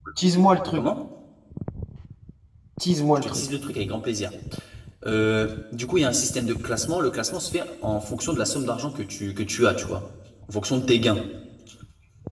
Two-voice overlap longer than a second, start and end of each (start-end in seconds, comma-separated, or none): none